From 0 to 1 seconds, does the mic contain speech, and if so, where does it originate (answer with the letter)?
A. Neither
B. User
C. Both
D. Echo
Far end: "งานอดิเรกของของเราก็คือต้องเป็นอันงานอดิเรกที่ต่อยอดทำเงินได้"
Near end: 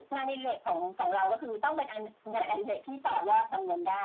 D